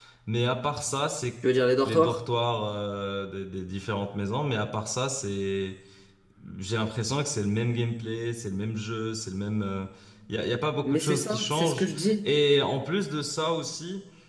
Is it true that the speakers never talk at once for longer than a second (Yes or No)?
No